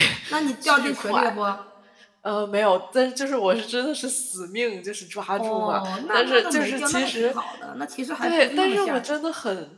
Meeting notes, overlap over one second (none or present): present